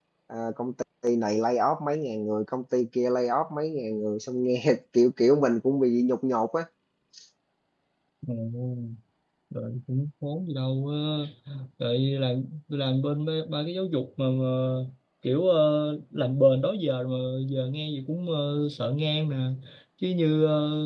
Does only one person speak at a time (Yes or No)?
Yes